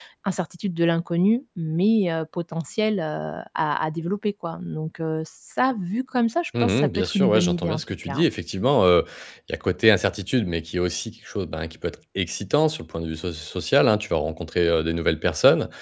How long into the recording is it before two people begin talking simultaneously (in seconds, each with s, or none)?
6.5 s